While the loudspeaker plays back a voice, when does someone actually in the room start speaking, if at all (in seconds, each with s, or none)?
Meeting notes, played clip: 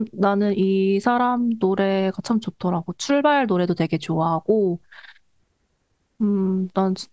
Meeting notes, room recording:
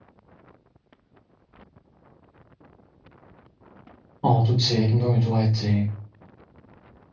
4.2 s